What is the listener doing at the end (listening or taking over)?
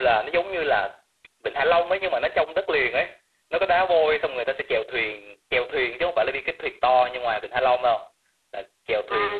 taking over